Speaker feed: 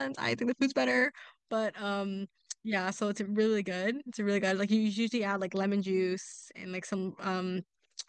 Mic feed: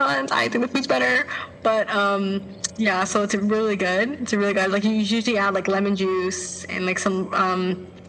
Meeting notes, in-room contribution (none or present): none